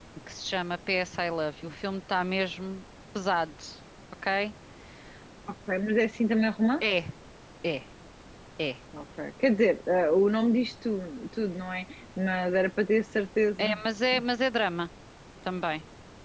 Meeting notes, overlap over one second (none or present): none